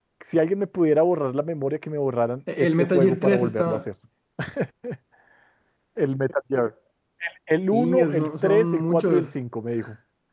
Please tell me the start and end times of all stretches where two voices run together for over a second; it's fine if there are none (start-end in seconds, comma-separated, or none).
2.6-3.8, 7.8-9.3